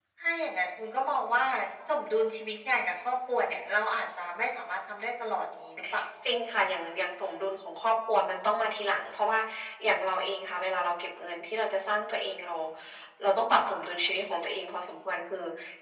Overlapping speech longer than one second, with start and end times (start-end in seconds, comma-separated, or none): none